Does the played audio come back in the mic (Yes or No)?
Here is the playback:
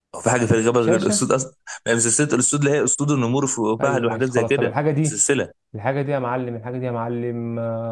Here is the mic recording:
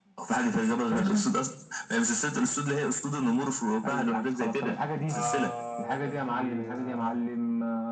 Yes